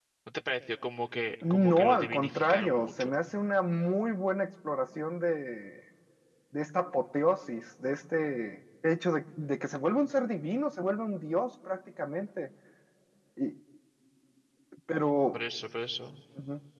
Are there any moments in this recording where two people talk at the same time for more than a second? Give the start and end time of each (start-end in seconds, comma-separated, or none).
1.5-3.1